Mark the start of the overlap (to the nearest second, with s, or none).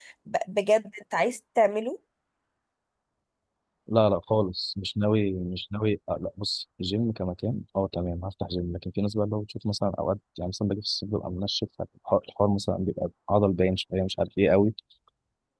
none